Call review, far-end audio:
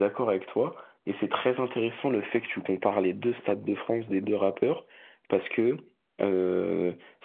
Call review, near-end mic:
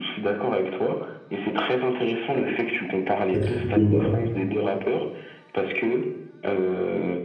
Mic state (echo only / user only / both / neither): both